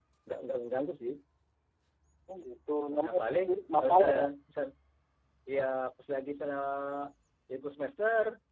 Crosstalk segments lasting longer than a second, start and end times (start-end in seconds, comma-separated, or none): 3.0-4.2